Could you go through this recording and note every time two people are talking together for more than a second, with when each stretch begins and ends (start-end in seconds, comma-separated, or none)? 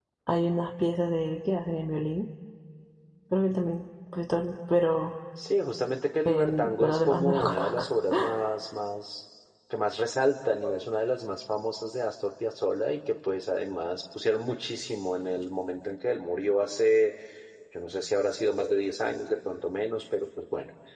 6.2-7.8